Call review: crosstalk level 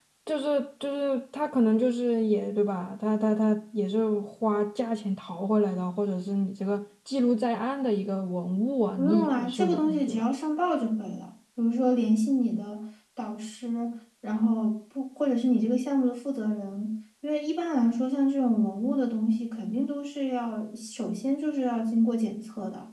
present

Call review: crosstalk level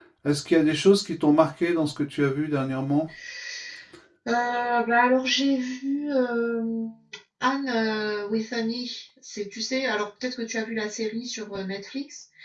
none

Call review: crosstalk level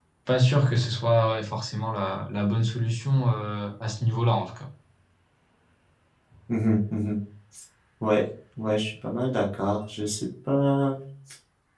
none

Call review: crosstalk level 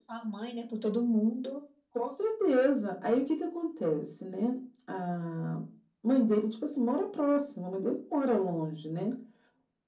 none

